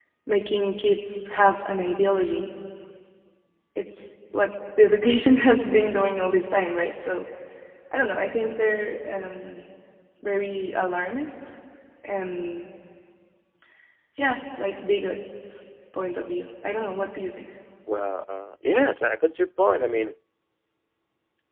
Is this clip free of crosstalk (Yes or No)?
Yes